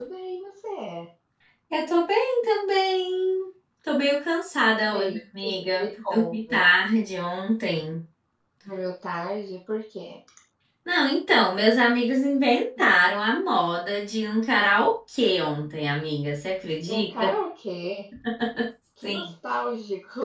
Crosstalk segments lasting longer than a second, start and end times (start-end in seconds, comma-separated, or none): 4.8-6.6